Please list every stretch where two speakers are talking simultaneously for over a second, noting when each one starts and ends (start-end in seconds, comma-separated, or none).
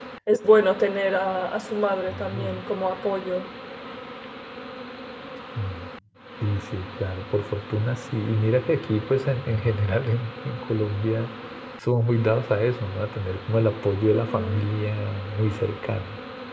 none